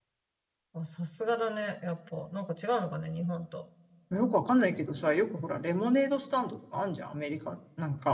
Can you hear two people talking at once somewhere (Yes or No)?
No